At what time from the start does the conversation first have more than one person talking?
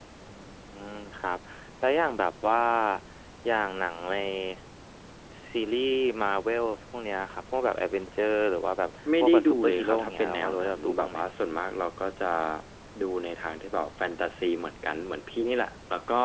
9.1 s

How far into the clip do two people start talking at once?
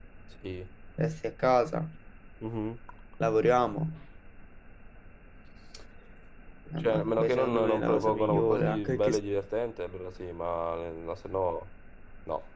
6.8 s

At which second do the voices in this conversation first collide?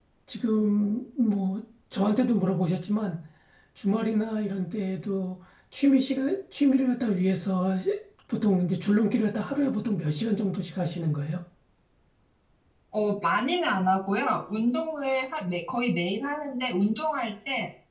none

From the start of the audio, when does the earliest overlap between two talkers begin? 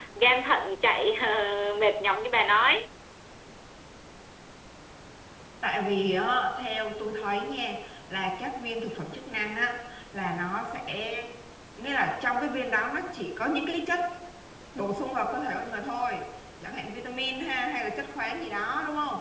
none

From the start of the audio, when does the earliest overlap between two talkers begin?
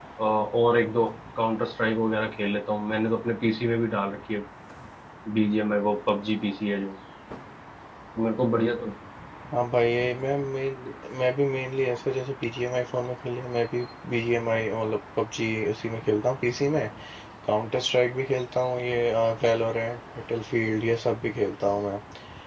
none

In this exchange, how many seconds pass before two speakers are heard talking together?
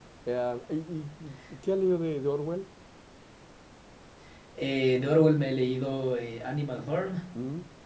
none

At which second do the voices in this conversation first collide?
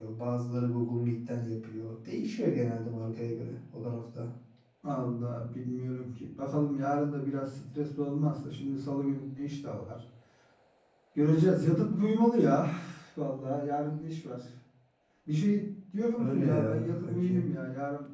16.2 s

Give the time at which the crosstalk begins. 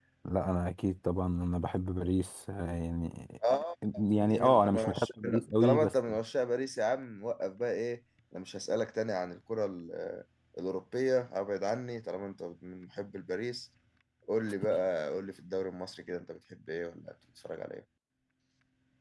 4.2 s

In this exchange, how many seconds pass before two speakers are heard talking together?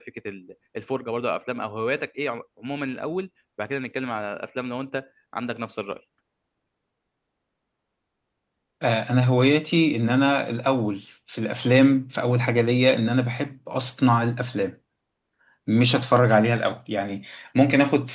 none

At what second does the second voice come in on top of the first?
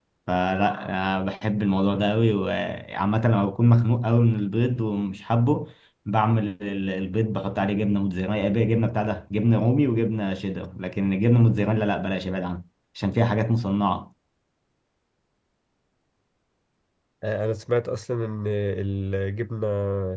none

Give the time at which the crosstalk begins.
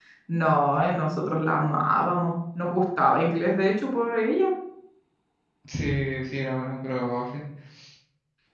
none

